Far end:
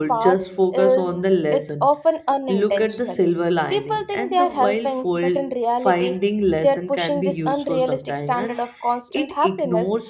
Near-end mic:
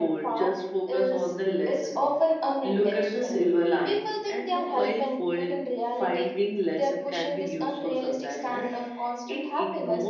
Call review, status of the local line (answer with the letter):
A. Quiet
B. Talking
A